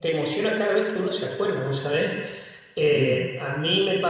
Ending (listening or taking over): listening